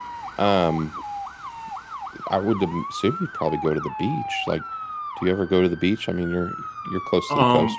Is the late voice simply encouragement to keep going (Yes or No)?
No